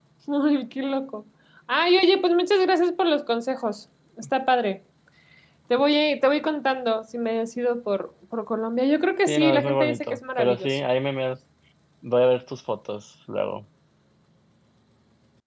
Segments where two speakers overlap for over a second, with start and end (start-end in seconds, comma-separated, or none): 9.3-10.8